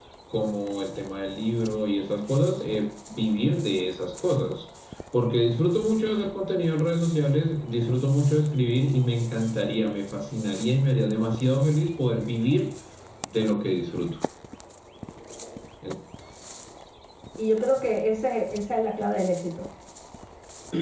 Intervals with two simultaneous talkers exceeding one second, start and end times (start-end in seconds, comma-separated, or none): none